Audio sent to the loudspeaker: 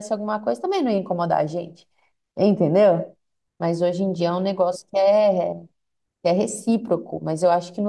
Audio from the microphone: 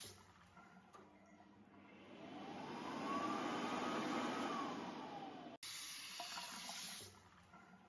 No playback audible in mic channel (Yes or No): Yes